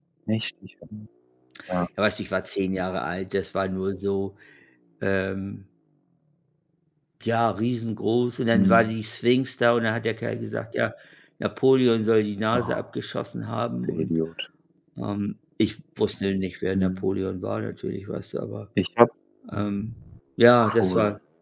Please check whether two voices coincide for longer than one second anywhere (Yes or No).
No